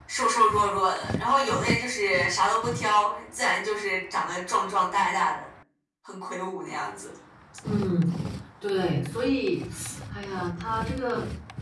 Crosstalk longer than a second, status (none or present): none